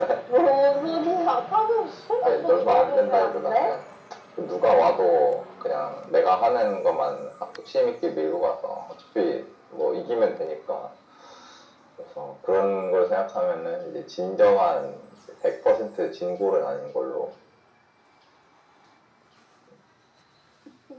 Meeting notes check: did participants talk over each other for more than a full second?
Yes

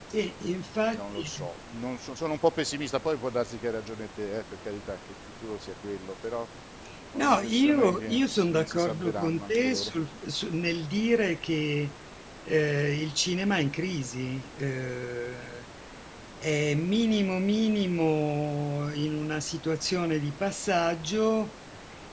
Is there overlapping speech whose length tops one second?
Yes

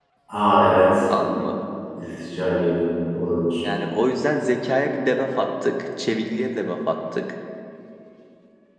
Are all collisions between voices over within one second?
Yes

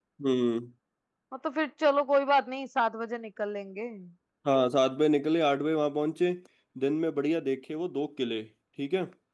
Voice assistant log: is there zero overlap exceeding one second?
Yes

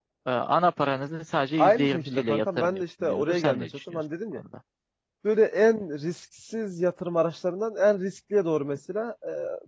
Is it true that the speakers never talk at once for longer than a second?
No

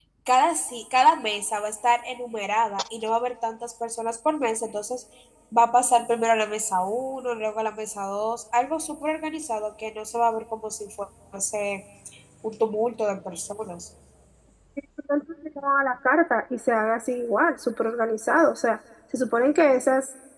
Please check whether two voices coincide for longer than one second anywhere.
No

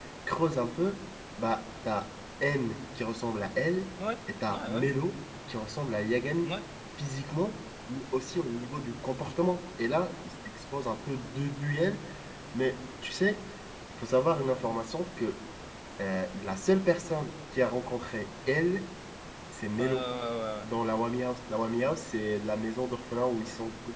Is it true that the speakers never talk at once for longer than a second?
Yes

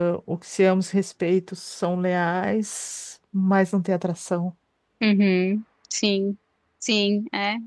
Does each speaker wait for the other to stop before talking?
Yes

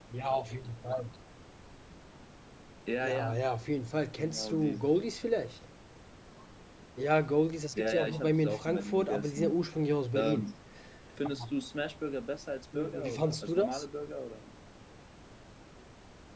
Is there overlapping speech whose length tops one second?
Yes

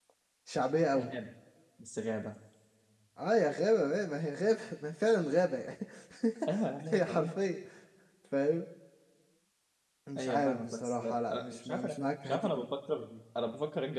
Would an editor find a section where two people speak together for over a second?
Yes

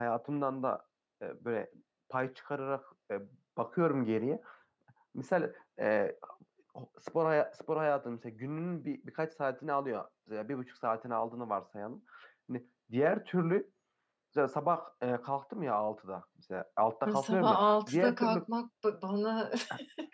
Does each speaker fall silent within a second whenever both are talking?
No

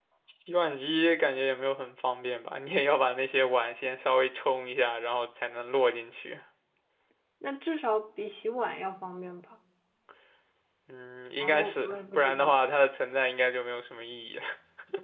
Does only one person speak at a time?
No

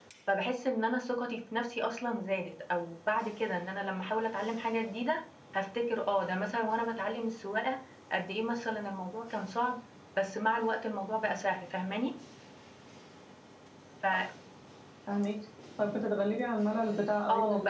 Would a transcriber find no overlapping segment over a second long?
Yes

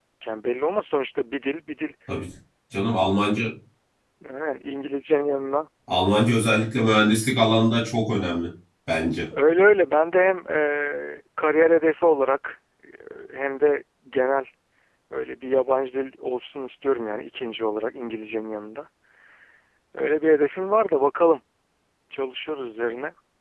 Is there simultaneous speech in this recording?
No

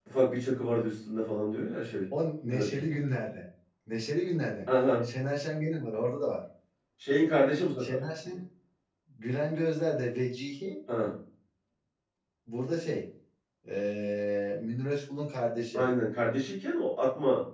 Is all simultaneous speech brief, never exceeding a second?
Yes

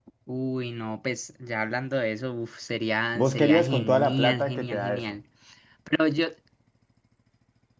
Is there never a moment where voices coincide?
No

